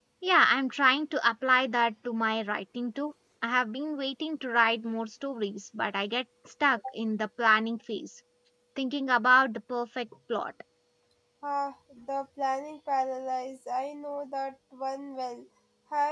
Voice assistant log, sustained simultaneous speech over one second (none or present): none